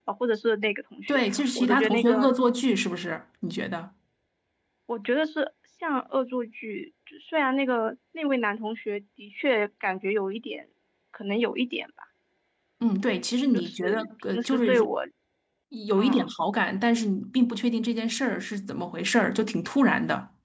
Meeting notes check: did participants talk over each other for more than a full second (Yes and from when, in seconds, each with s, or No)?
Yes, from 1.1 s